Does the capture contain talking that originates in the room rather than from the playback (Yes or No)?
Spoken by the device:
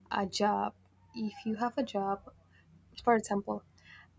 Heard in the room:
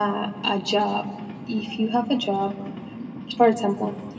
No